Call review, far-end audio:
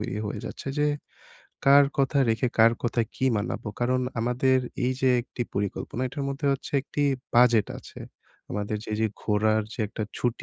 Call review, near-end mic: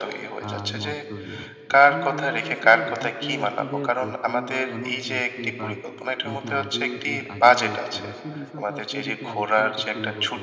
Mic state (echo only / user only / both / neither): both